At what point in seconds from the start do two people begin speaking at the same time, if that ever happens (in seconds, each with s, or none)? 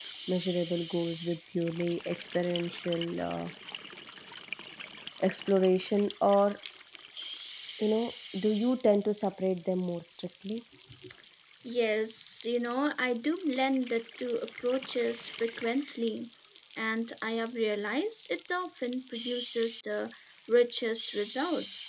none